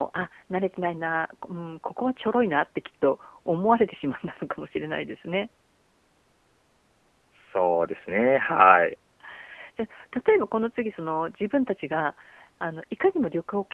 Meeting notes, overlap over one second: none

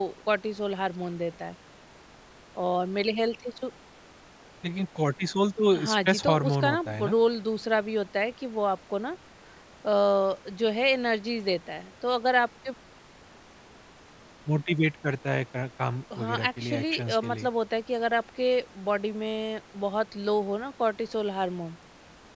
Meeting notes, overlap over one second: present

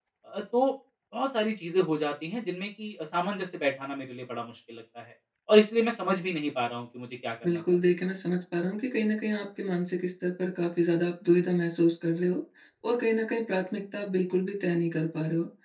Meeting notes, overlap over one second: none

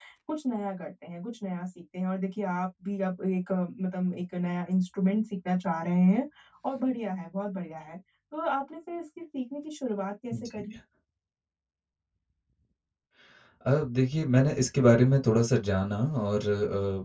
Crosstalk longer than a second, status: none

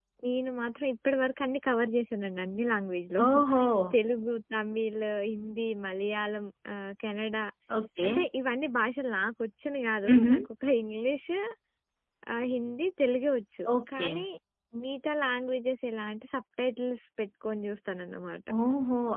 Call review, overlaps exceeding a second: none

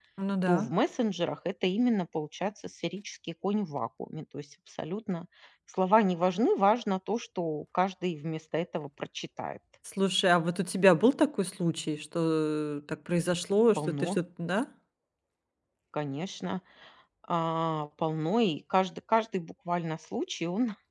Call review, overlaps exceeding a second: none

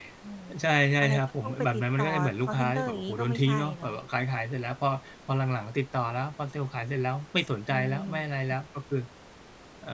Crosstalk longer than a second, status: present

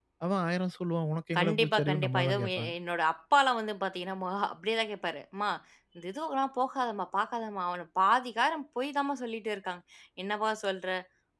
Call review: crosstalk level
present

